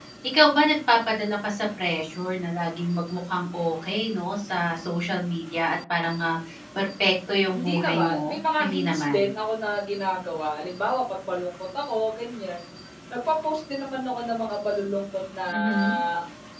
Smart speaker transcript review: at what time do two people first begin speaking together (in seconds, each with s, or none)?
7.5 s